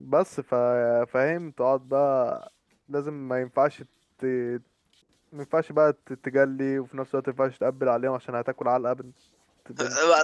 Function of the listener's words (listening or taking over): taking over